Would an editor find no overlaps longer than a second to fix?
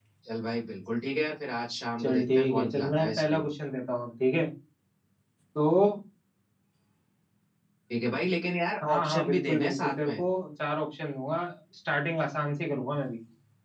No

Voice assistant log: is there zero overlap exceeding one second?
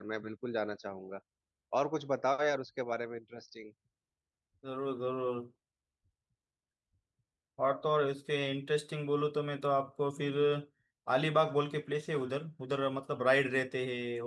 Yes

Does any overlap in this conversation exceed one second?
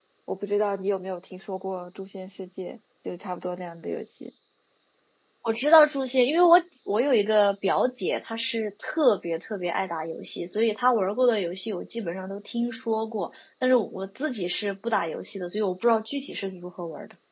No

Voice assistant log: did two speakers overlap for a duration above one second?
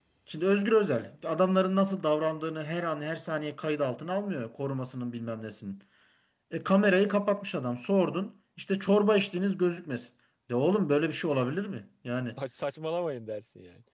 No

